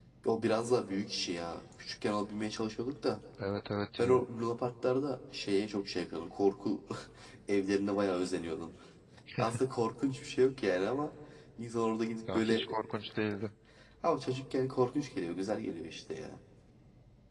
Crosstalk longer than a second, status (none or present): none